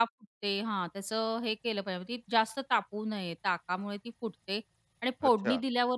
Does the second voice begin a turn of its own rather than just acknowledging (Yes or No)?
No